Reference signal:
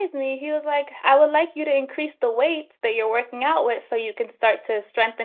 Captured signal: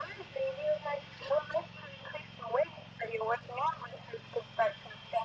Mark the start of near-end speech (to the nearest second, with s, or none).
none